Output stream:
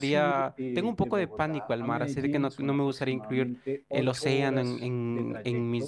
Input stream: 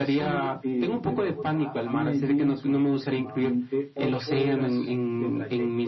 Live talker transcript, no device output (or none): none